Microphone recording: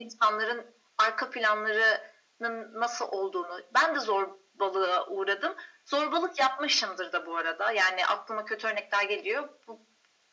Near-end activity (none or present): none